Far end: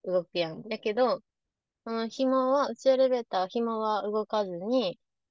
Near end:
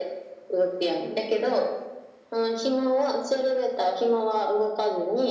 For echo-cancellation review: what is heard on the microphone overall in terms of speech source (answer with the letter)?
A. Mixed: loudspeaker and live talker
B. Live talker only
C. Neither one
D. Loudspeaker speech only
D